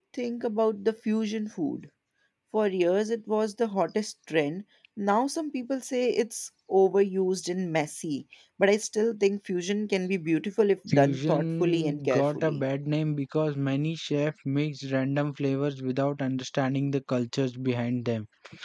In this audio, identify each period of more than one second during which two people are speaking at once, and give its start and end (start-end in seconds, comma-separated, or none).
10.9-12.6